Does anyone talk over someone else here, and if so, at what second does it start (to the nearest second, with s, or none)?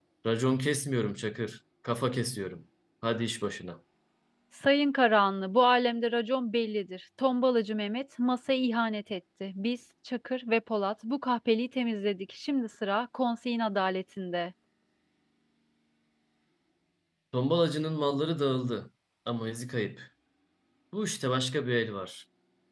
none